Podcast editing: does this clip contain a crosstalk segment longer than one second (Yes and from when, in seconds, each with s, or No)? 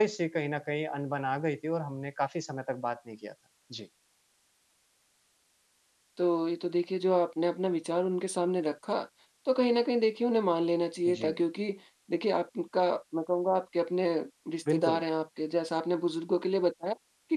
No